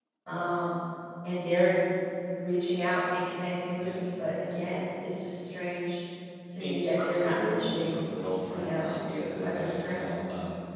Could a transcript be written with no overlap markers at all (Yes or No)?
No